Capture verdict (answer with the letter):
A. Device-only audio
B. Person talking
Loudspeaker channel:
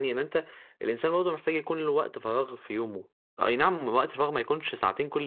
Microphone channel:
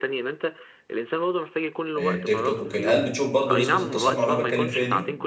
B